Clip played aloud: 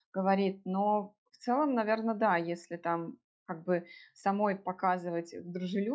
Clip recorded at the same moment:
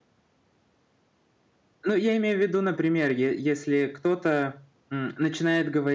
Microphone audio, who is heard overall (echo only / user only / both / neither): user only